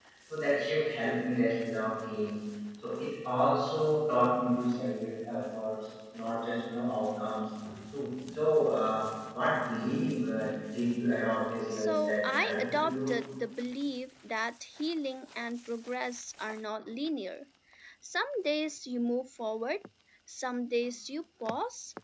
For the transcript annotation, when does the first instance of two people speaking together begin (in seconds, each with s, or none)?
11.7 s